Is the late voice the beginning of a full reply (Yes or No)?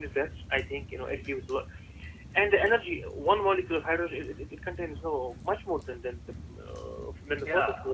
Yes